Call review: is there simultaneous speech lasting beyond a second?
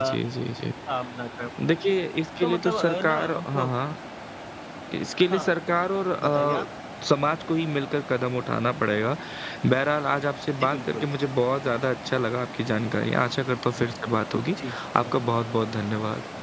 Yes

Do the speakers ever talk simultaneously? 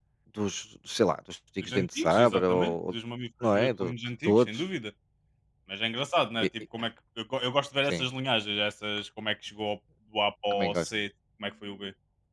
Yes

